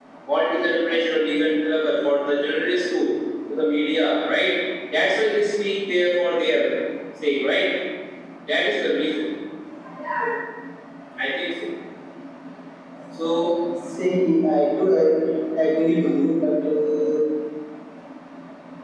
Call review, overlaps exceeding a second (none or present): none